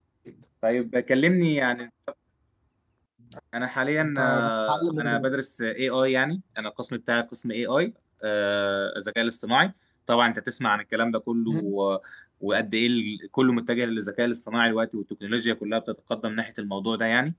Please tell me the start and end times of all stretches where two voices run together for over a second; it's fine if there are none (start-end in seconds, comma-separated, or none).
4.0-5.3